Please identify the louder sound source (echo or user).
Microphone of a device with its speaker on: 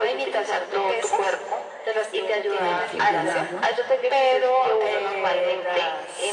echo